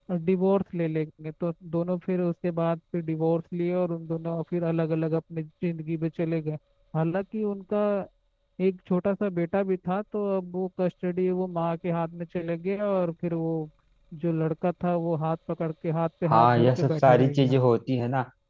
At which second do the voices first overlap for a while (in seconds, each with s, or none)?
16.2 s